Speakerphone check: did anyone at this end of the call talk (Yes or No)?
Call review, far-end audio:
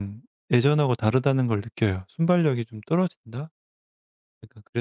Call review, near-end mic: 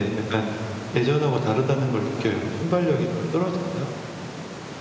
No